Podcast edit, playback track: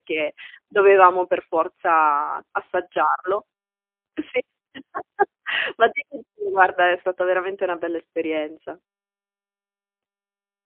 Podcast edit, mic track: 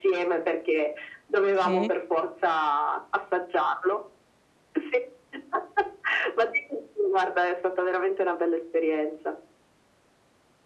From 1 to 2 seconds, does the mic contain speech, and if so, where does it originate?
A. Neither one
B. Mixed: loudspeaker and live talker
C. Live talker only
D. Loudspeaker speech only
B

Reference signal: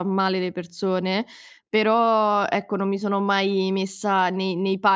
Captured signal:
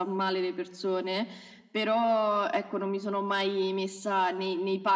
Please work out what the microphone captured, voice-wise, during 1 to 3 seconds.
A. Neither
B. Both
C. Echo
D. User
C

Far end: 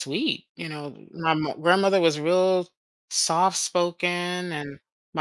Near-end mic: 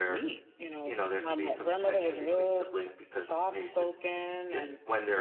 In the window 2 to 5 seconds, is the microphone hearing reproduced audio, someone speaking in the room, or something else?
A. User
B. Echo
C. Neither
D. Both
D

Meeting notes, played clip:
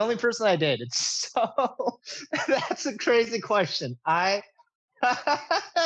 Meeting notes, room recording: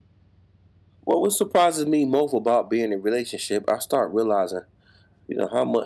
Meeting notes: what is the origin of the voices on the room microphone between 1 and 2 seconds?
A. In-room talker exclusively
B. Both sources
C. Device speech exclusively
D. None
A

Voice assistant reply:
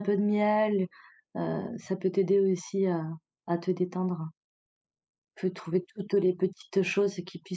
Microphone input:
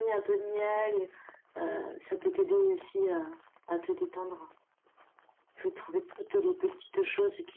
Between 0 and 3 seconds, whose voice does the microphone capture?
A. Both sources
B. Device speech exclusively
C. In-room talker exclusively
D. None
B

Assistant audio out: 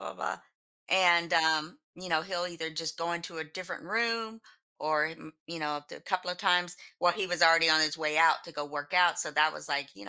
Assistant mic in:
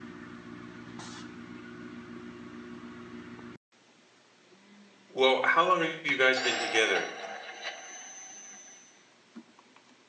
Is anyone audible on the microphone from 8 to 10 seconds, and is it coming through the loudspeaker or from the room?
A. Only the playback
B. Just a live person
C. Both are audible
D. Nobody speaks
D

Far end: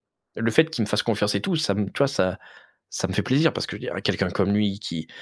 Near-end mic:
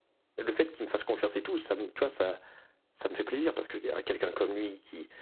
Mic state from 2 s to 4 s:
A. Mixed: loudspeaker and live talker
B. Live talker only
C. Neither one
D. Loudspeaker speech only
D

